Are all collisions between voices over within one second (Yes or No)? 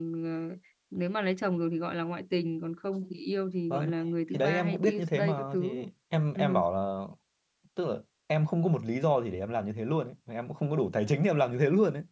No